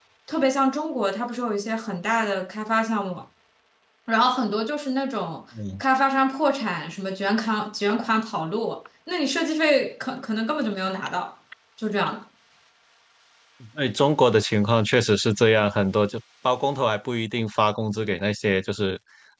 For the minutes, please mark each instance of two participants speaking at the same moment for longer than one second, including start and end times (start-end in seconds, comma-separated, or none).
none